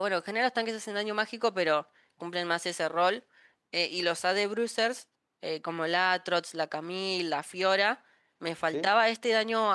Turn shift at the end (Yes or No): No